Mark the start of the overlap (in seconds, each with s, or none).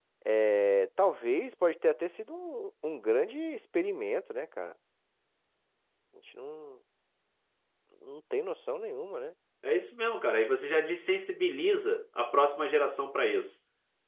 none